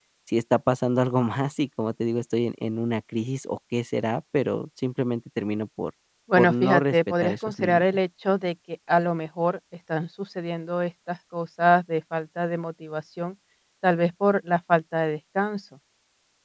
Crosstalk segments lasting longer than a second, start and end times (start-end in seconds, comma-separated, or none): 6.4-7.8